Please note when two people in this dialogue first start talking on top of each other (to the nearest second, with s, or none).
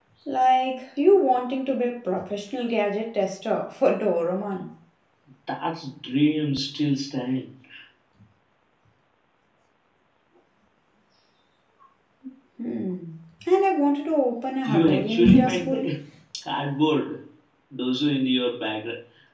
15 s